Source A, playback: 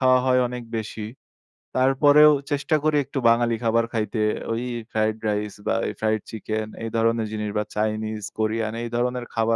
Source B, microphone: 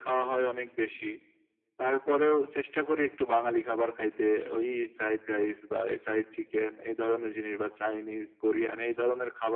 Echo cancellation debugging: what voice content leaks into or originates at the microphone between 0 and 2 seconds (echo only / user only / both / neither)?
echo only